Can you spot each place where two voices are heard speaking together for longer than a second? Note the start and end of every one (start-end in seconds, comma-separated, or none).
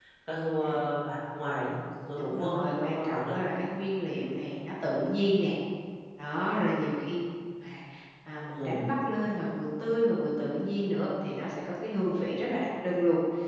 2.2-3.4